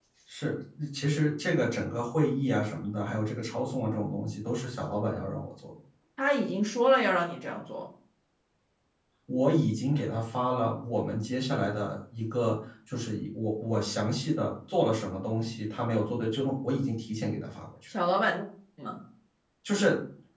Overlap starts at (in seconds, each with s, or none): none